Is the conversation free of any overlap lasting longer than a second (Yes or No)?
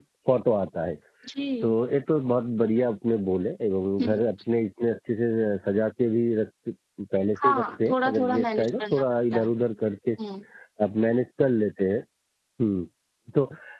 No